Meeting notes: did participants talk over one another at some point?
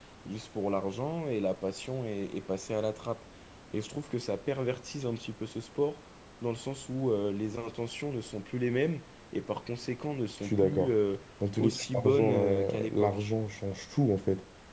Yes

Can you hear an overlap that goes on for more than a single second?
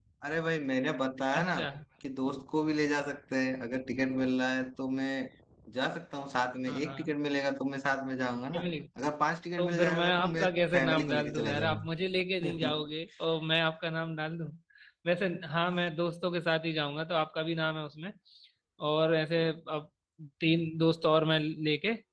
Yes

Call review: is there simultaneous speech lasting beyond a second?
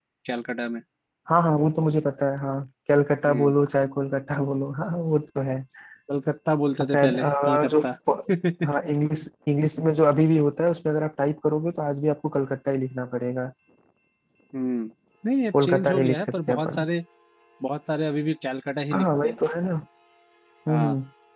Yes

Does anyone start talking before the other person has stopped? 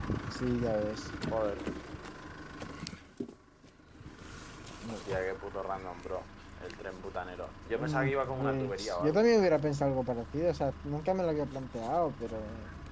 Yes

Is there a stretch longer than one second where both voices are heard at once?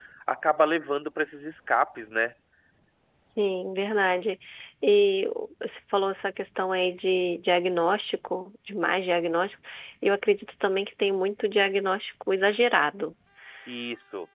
No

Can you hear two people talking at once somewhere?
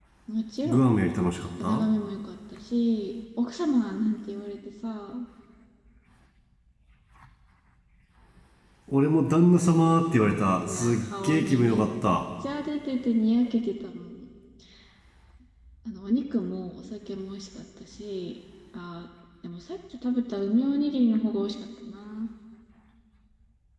Yes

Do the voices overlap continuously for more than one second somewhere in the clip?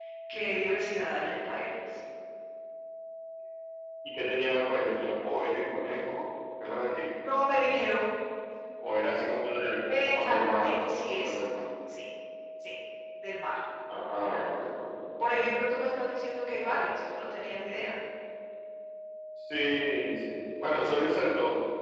Yes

